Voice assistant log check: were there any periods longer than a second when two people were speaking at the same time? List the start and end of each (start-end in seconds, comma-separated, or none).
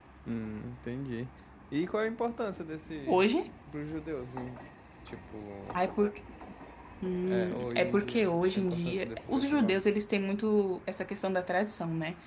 7.2-9.8